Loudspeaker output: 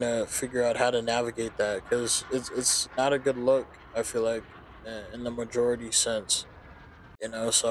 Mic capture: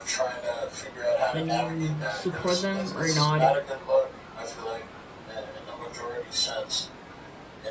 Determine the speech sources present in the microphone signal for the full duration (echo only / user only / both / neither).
both